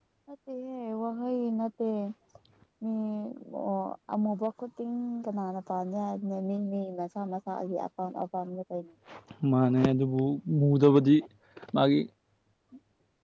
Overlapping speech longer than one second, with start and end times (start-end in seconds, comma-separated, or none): none